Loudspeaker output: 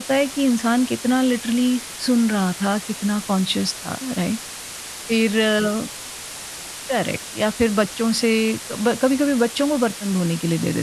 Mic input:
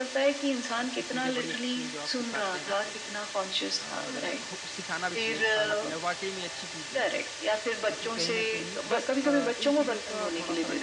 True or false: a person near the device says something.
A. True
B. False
A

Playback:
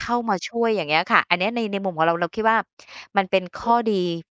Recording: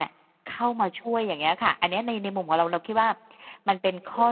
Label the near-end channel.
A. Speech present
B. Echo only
B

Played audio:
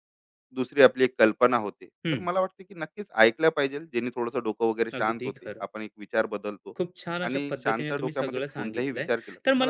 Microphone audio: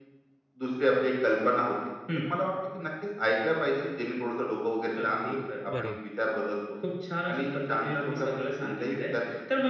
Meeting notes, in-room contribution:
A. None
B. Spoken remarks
B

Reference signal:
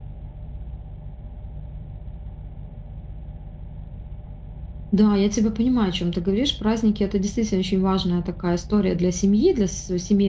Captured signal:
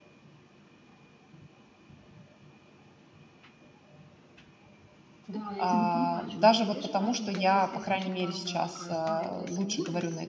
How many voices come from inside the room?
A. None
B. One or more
B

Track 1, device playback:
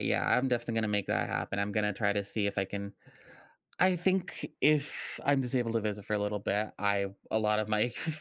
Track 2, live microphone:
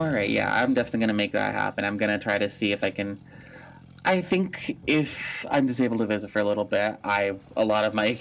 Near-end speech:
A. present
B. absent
B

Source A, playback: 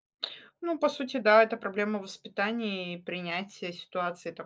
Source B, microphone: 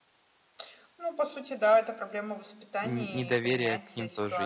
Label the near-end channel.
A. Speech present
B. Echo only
A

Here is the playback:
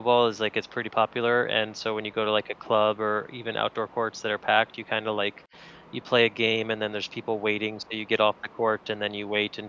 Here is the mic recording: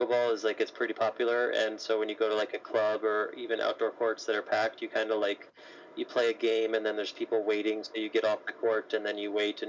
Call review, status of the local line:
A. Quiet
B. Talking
A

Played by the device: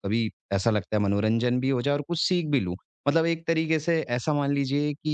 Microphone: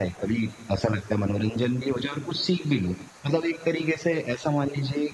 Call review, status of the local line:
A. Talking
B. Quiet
B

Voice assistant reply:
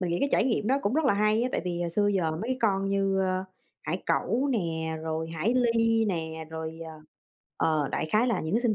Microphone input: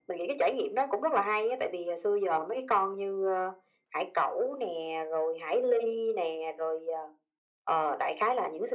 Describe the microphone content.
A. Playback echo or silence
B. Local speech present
A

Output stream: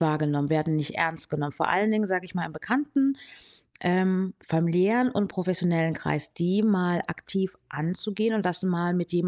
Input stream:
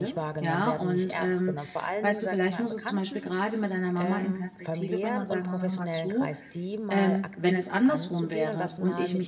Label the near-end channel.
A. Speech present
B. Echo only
A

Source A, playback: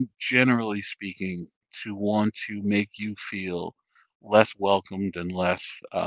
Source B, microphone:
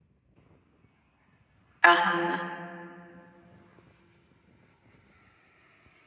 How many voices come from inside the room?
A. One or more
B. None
A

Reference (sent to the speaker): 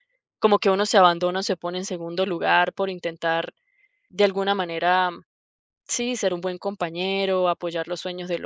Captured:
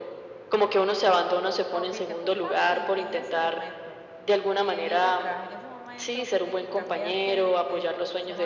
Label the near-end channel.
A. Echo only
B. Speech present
B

